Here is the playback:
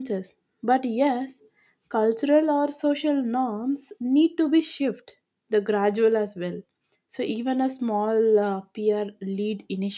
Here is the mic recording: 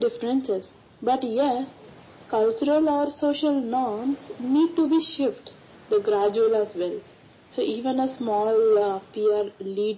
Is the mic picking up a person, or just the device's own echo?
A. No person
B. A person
A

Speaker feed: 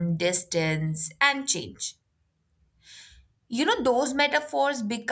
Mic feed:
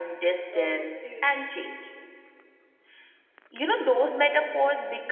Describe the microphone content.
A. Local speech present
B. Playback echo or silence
A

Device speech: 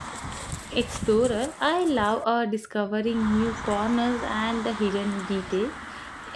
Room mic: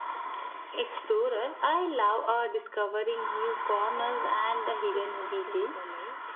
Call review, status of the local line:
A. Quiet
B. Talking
B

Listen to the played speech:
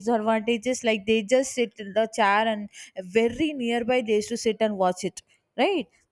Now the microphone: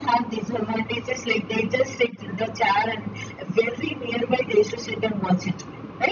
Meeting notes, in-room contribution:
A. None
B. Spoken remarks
A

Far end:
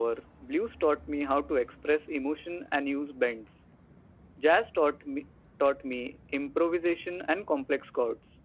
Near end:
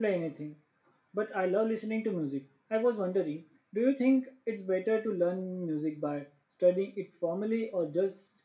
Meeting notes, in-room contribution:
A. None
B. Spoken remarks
B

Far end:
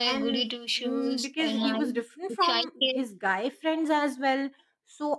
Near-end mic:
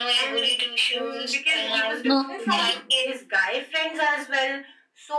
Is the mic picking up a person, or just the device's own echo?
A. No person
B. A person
B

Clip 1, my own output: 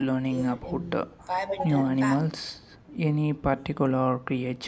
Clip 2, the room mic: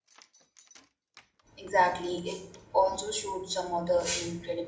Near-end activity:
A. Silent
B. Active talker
B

